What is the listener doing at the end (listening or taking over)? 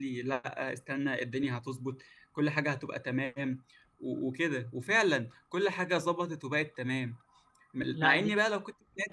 listening